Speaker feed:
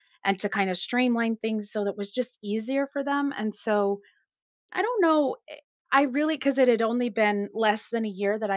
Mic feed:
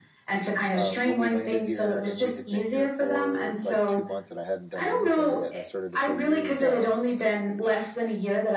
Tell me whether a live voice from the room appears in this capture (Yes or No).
Yes